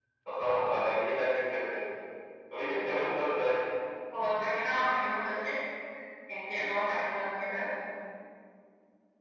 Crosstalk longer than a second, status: none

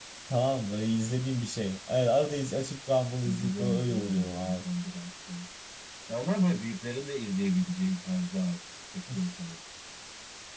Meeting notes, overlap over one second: present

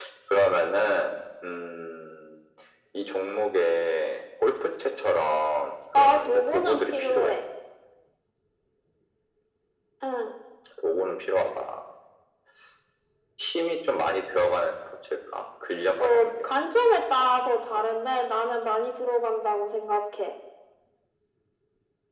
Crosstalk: present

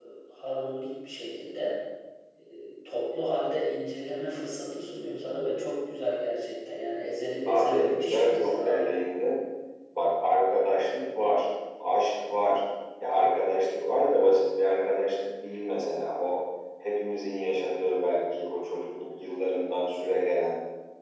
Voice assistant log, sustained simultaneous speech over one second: present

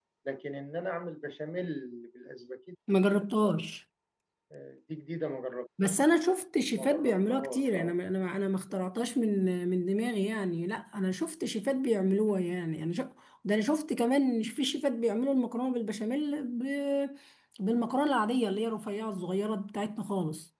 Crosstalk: present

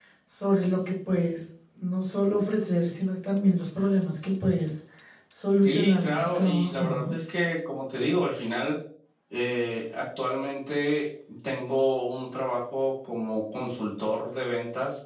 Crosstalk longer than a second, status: present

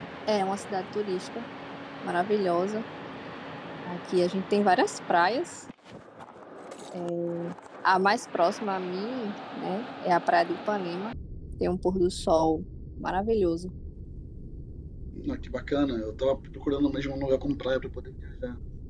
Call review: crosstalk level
none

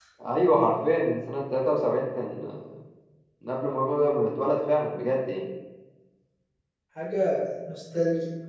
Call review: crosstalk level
none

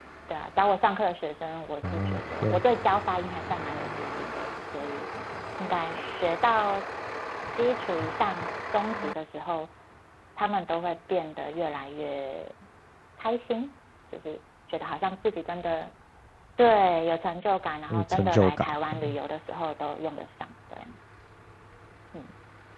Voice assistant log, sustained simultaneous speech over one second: present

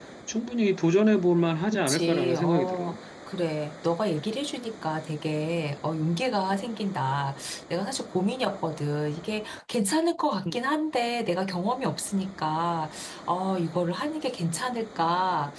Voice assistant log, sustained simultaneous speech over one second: present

